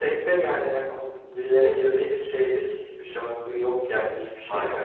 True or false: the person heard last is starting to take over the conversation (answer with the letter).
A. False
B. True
B